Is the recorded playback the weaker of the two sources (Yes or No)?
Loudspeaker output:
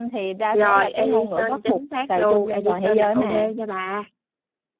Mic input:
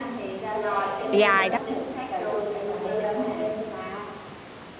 Yes